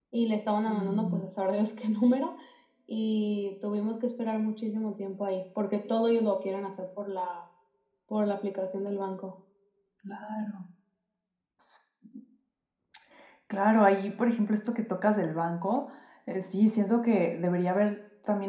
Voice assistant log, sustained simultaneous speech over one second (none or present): none